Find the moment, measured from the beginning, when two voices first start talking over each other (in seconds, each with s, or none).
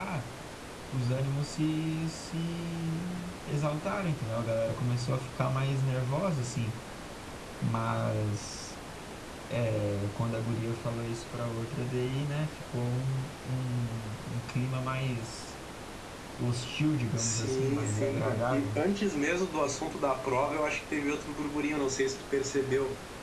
17.2 s